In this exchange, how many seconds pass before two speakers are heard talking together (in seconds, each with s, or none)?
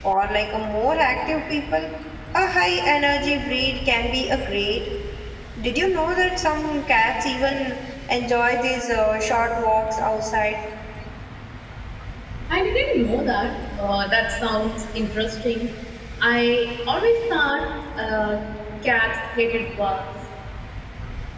none